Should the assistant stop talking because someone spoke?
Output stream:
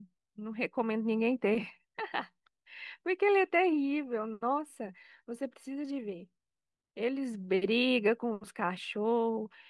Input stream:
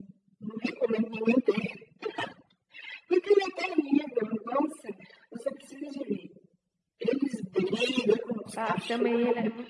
Yes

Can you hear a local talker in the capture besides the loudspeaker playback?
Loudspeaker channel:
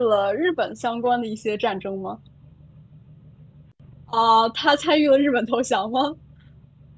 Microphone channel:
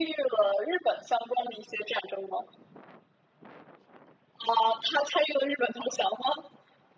No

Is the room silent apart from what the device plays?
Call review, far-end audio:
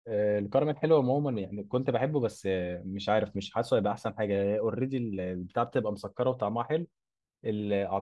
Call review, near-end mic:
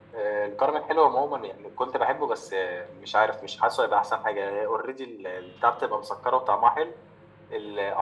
Yes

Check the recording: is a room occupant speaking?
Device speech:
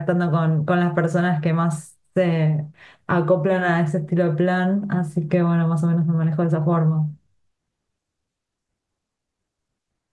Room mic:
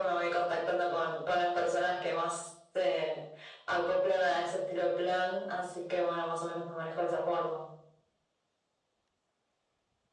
No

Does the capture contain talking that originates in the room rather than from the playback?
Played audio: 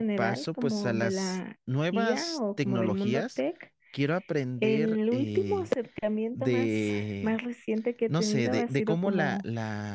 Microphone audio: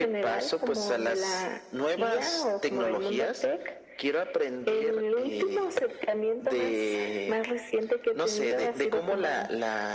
No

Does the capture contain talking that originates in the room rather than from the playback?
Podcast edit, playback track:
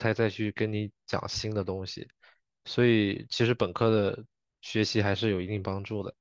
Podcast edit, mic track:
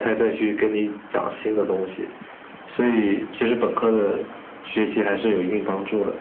No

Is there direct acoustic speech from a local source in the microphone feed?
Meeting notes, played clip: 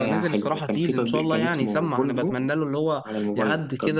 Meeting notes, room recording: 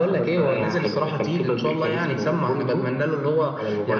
No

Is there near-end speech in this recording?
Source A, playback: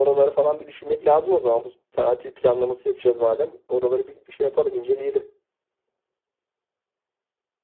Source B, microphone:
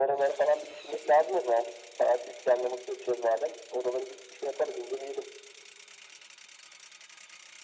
No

